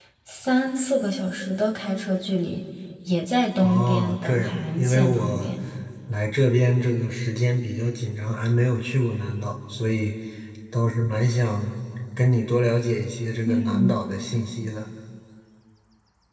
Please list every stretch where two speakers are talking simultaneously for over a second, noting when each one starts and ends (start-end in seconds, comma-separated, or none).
3.6-5.5